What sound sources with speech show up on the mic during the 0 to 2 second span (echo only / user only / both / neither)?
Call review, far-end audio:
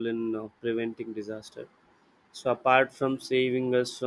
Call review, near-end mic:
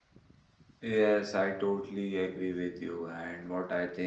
user only